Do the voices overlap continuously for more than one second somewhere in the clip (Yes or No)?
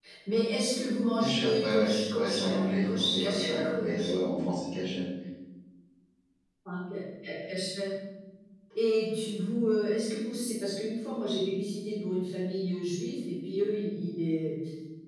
Yes